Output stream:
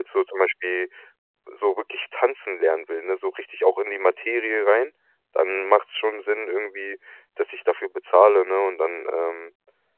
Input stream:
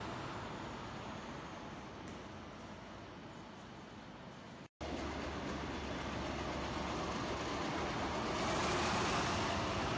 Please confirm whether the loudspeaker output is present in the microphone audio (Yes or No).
No